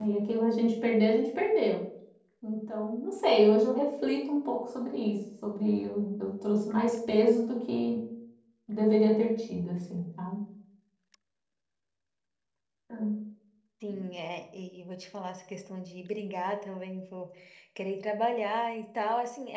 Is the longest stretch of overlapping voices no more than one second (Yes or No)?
Yes